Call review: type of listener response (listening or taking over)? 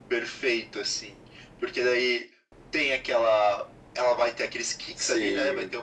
listening